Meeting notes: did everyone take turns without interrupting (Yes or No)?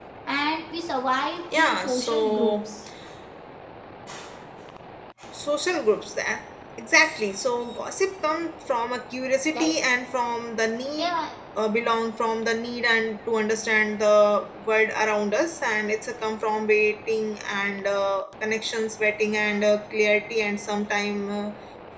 No